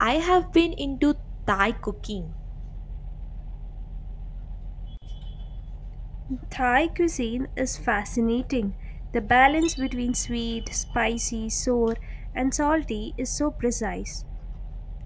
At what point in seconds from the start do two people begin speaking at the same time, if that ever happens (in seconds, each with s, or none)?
none